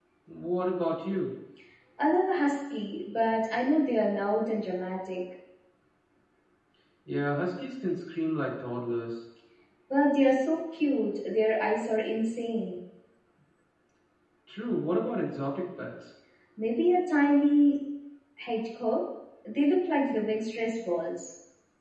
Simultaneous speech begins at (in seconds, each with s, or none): none